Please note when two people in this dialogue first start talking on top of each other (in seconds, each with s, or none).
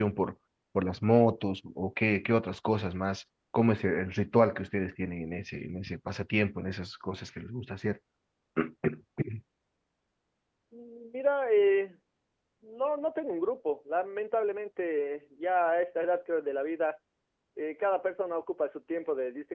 none